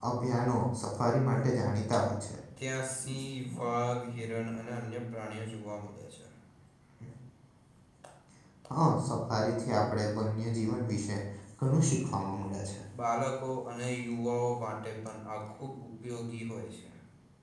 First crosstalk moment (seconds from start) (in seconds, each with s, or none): none